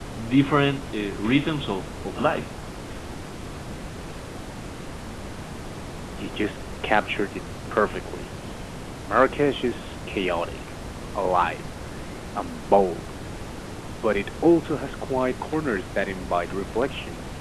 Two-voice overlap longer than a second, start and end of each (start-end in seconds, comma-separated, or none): none